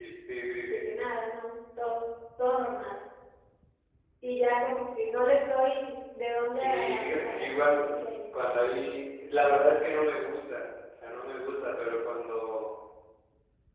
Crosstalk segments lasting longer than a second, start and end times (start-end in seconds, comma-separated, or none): 6.5-7.8